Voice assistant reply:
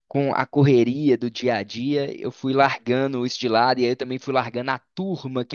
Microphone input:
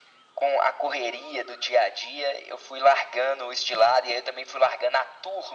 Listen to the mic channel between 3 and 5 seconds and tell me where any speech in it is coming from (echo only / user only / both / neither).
echo only